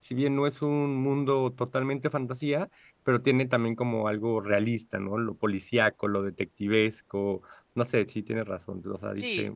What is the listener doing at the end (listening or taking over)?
taking over